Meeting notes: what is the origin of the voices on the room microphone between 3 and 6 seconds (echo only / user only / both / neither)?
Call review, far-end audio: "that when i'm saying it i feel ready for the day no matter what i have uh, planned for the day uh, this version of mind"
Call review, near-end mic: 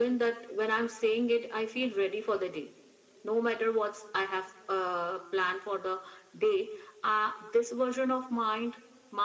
echo only